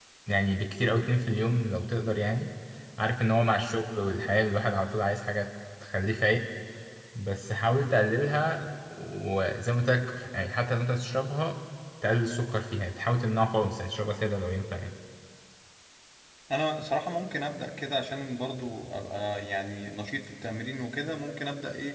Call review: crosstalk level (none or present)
none